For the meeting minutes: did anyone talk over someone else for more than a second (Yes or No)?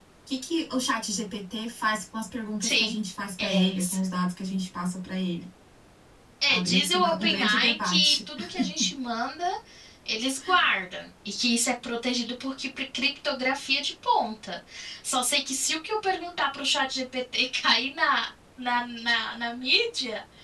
Yes